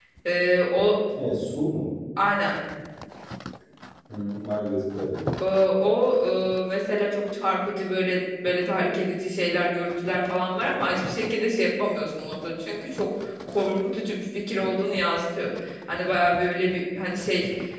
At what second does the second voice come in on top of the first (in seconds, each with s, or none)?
none